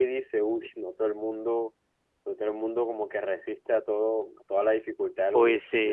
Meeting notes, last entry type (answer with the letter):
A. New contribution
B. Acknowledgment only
A